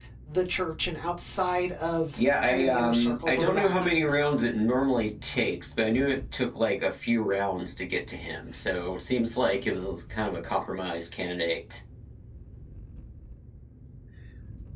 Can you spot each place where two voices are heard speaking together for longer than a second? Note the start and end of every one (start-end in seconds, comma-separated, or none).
2.2-4.1